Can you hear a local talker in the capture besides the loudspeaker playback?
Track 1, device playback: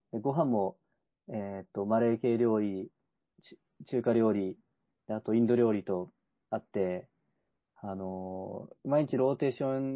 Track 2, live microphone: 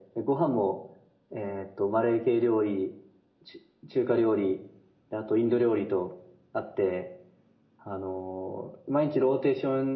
No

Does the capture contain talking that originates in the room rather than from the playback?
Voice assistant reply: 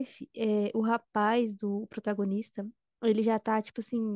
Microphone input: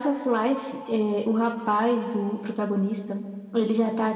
No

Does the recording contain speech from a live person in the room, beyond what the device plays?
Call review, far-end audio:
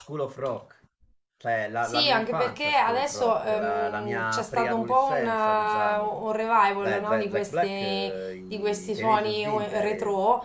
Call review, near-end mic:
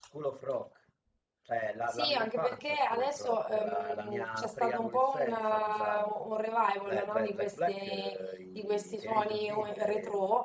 No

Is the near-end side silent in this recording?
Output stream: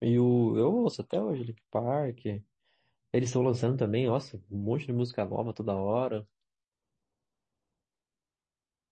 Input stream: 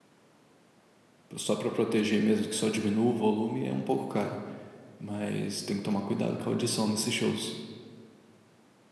No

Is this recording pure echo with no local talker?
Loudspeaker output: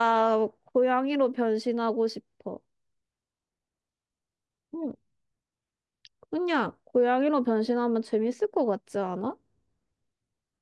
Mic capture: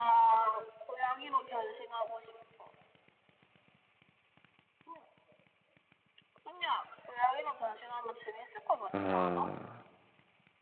No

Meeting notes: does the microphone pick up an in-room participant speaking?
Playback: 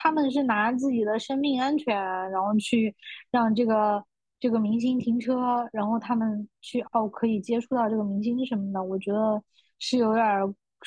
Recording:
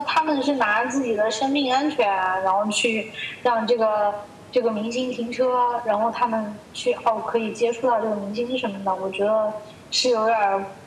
No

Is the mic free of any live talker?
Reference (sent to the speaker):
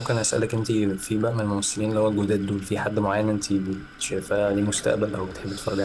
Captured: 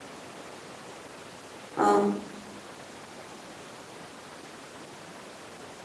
No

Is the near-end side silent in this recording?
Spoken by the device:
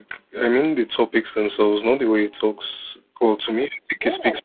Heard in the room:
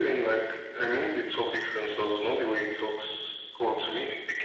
Yes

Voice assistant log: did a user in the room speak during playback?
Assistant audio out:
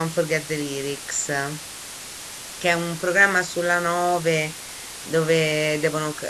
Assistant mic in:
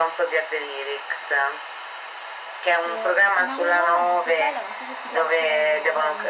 Yes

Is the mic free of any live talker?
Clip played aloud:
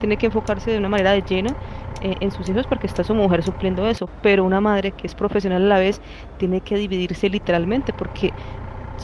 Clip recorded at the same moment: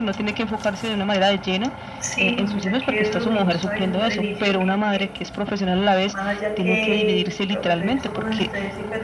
No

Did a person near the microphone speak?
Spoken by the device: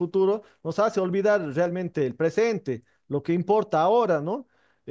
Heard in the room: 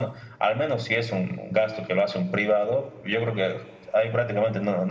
Yes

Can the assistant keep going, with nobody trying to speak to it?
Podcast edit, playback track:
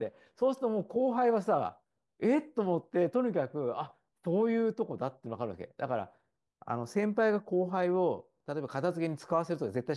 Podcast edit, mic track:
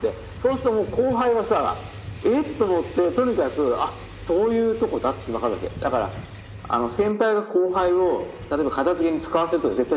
Yes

